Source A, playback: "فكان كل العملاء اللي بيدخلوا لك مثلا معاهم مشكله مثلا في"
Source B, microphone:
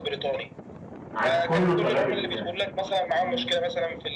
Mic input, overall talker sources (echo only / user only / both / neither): both